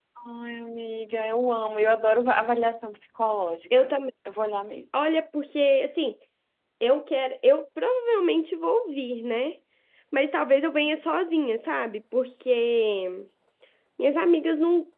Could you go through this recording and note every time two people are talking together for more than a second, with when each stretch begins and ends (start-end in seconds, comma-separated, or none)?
none